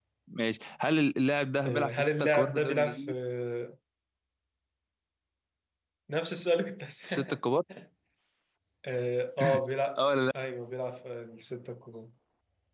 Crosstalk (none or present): present